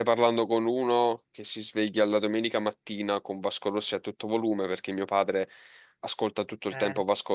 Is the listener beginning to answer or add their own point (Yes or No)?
No